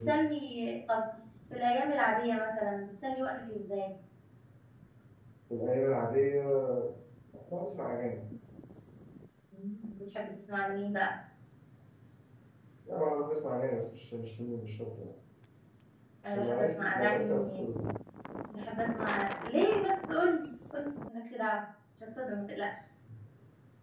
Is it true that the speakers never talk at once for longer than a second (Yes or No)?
No